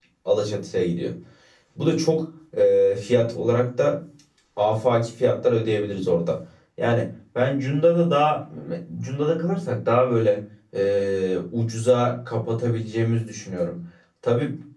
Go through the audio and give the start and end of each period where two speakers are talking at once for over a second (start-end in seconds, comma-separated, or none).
none